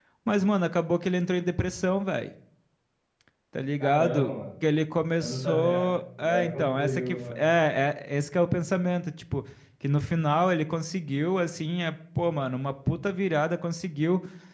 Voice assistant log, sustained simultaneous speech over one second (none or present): present